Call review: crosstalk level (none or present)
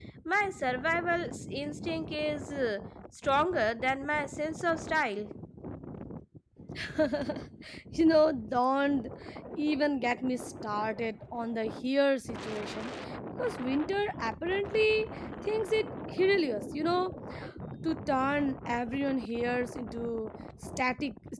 none